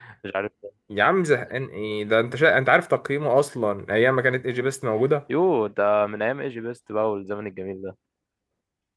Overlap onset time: none

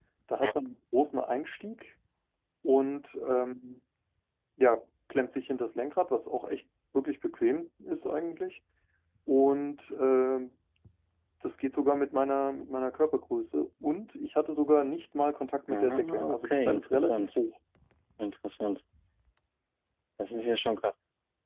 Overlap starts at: 15.7 s

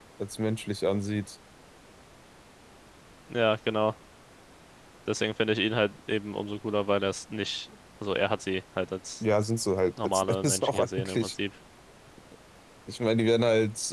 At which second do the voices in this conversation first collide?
10.0 s

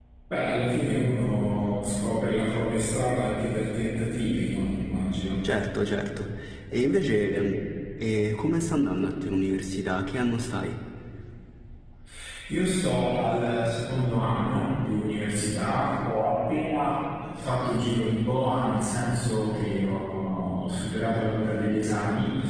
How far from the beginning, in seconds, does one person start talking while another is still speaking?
none

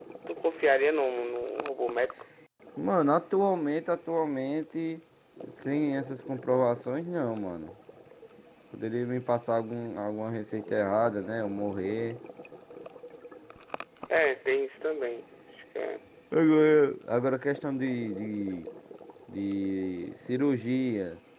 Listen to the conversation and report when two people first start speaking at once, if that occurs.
none

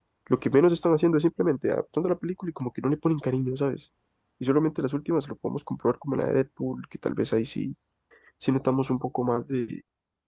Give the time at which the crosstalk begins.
none

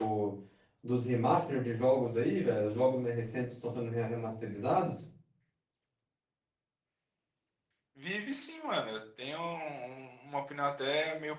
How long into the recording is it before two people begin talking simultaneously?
none

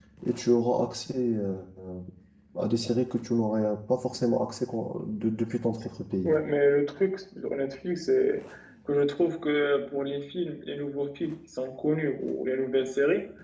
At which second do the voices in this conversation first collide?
none

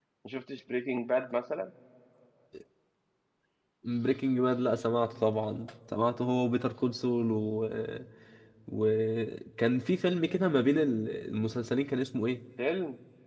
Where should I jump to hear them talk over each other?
none

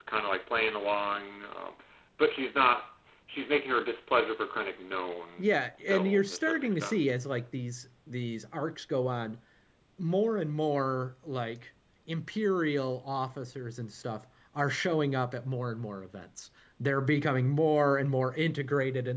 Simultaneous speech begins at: 5.4 s

